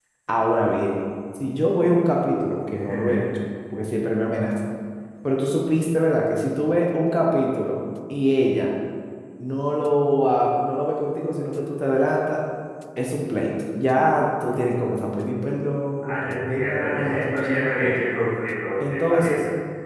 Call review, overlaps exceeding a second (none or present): present